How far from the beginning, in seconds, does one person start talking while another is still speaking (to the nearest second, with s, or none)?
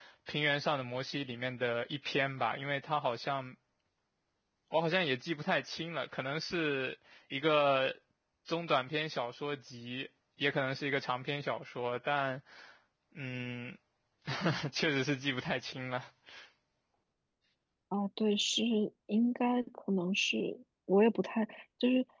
none